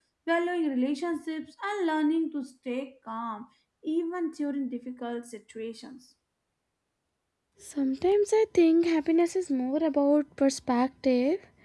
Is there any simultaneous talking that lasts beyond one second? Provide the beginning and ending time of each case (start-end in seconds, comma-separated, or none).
none